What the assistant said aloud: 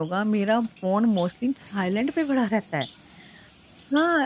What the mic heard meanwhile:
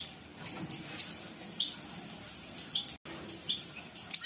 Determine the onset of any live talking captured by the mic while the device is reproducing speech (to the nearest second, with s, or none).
none